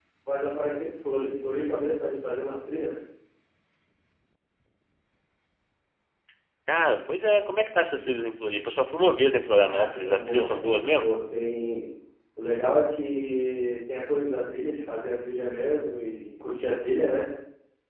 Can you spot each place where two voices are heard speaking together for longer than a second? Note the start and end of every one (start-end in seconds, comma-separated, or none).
9.6-11.1